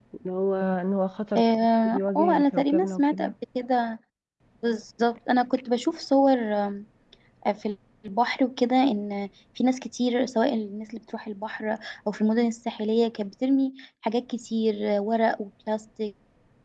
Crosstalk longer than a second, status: present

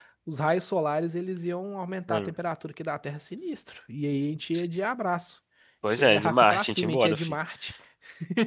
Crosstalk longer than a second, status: present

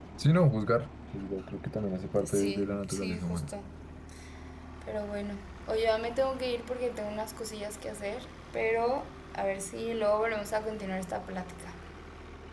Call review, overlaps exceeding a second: present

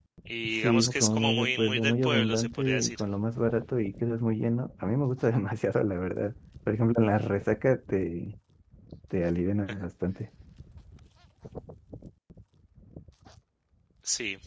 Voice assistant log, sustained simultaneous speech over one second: present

